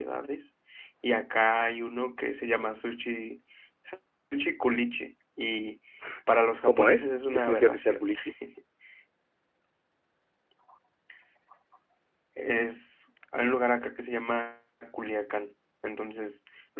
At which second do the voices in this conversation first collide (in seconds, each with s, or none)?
6.7 s